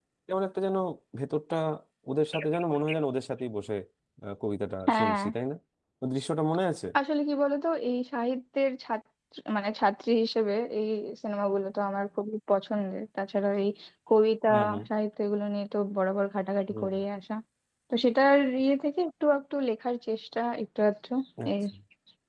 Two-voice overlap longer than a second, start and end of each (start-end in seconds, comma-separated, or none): none